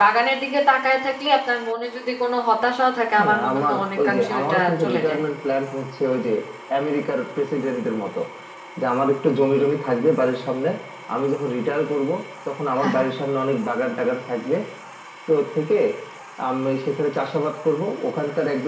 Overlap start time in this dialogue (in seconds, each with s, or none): 3.2 s